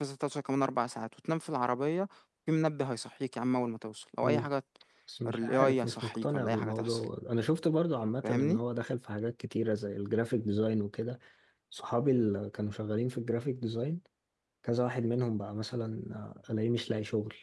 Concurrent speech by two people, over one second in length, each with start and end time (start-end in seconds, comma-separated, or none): 5.3-7.0